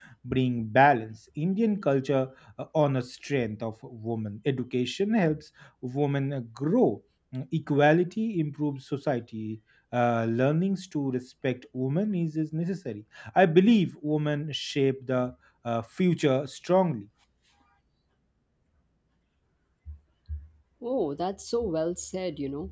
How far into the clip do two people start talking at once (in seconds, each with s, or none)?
none